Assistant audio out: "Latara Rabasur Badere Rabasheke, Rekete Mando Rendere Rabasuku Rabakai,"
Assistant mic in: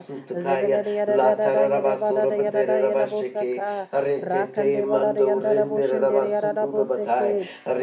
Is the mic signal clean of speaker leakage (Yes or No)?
No